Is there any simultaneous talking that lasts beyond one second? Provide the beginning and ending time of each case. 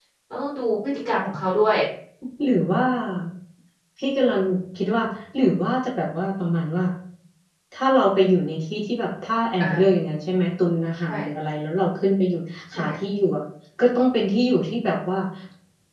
none

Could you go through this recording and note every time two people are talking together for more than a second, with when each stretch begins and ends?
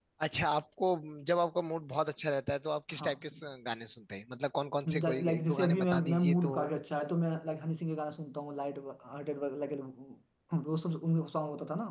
5.0-6.5

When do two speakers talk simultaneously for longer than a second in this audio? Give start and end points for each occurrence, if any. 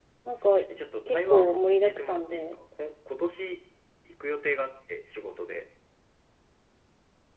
1.1-2.6

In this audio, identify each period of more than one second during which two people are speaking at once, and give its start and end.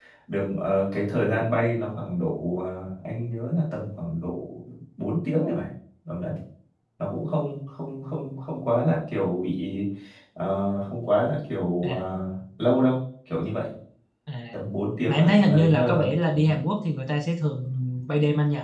15.1-16.4

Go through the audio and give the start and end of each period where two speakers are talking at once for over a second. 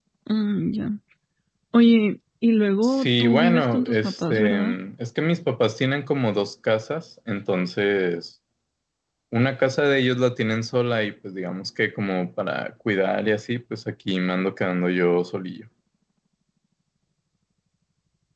2.8-4.7

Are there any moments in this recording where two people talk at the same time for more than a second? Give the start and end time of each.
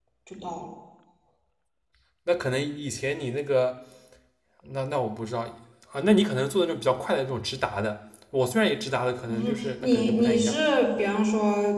9.2-10.6

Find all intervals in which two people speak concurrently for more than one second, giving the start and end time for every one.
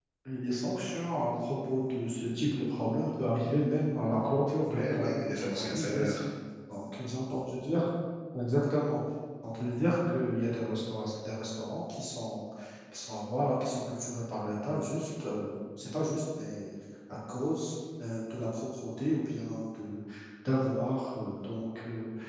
4.7-6.2

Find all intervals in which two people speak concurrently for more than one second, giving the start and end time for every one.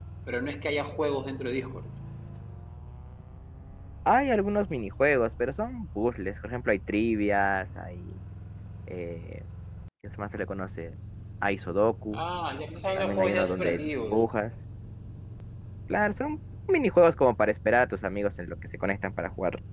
13.0-14.2

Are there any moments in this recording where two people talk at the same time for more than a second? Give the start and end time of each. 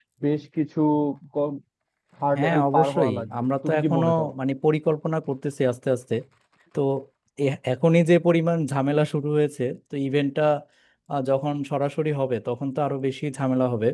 2.4-4.3

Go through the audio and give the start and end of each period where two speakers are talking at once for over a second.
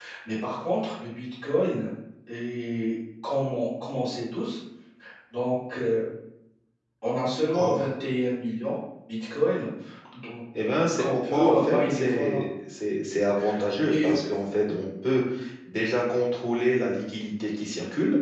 11.0-12.4

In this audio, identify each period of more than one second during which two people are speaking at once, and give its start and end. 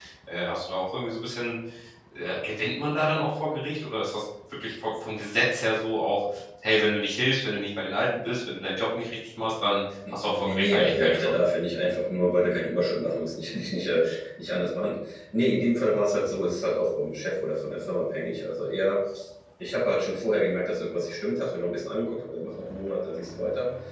10.1-11.4

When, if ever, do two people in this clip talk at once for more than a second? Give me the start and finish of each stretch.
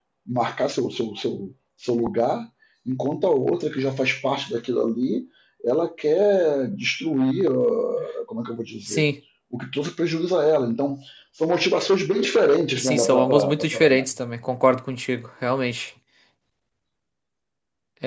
12.8-14.1

